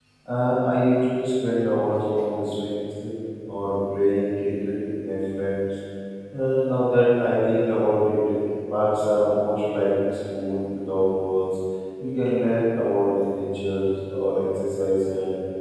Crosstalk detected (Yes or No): No